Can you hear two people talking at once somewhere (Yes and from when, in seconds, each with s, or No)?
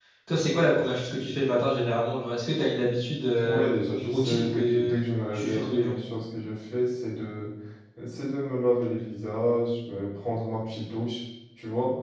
Yes, from 3.4 s